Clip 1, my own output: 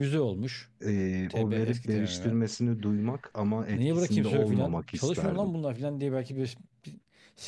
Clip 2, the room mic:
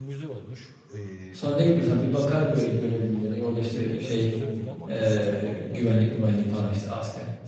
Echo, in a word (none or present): present